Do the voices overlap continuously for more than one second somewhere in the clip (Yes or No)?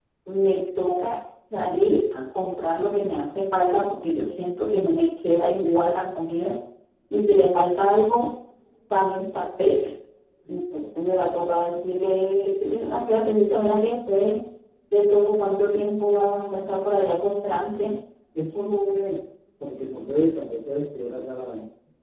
No